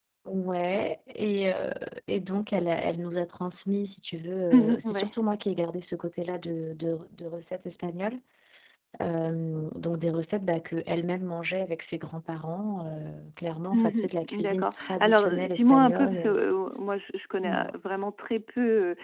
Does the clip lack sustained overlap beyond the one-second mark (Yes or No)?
No